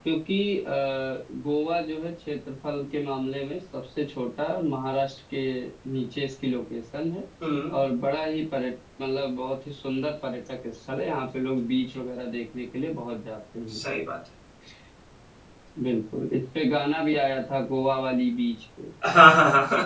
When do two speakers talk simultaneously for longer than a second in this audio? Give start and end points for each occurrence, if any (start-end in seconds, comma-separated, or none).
none